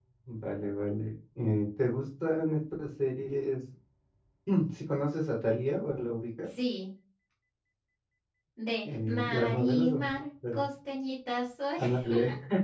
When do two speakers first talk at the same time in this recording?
8.8 s

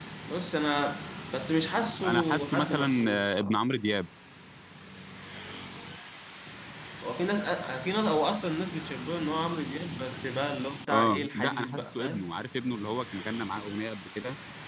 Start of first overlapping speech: 2.0 s

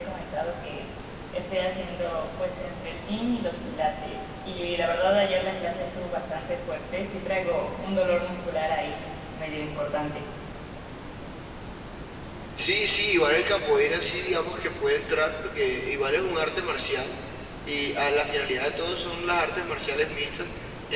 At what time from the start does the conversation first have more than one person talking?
none

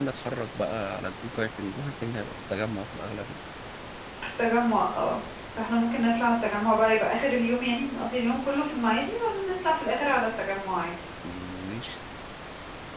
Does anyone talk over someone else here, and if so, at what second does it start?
none

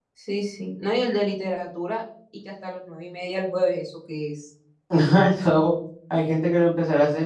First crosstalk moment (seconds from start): none

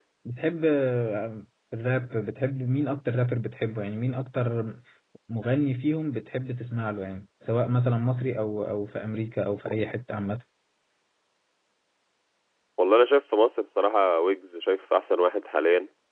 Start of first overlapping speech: none

